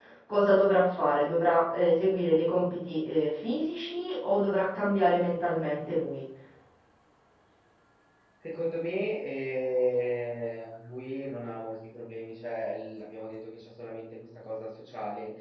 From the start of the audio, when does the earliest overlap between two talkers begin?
none

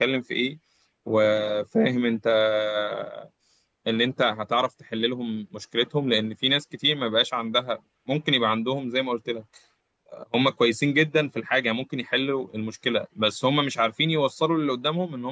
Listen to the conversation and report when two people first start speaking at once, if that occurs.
none

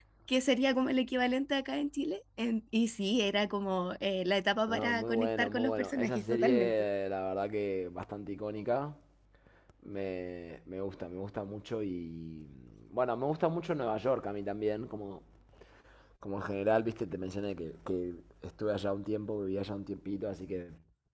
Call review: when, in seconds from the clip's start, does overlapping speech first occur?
5 s

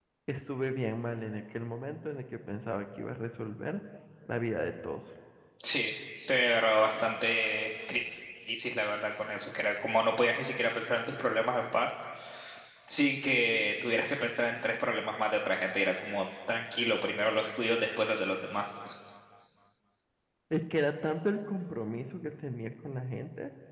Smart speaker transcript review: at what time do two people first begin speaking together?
none

